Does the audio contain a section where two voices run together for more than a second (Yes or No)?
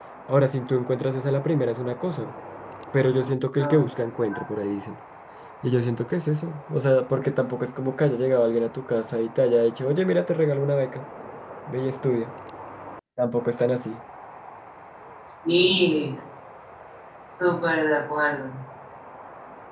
No